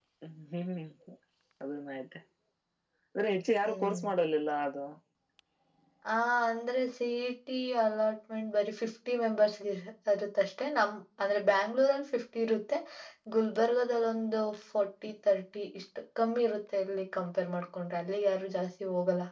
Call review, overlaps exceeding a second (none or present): none